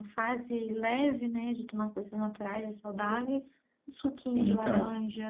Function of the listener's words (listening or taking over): taking over